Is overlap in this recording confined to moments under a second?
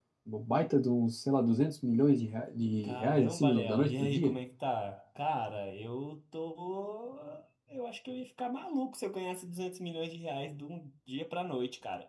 No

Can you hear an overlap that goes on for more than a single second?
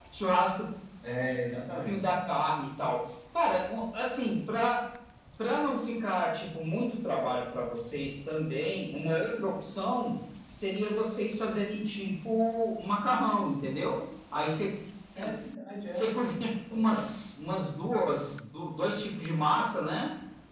No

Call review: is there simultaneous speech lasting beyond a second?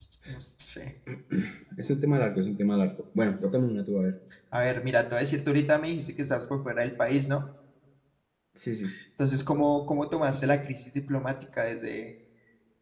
No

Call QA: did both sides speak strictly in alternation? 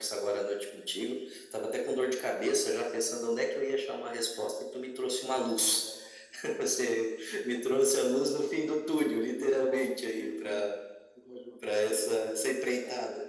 No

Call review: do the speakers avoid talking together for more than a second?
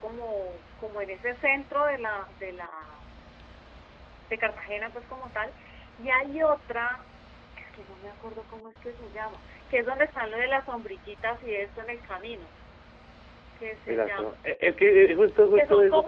Yes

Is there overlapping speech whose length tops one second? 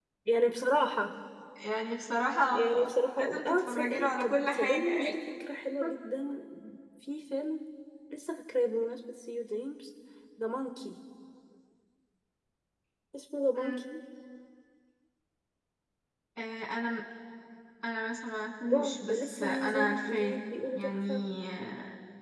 Yes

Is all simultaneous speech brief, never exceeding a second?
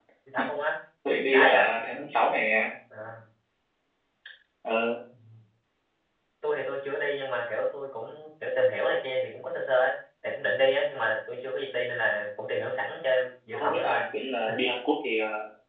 Yes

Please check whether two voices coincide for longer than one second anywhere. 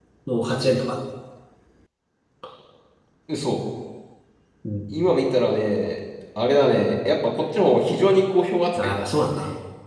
No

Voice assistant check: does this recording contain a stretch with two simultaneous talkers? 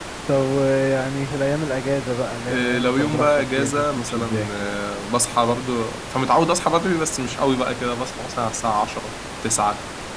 Yes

